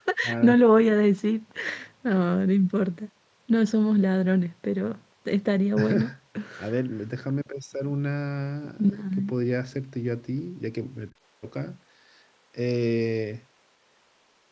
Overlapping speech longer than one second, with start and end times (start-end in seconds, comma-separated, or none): none